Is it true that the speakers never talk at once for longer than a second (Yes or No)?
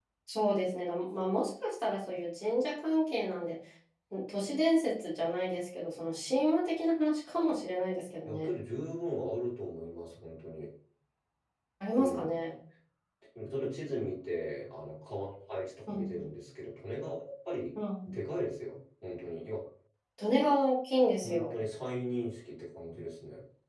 Yes